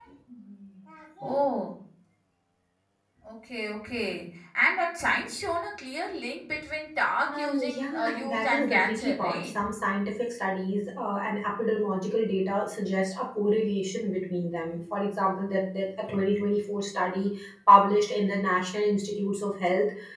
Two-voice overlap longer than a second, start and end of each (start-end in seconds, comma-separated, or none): 7.3-9.6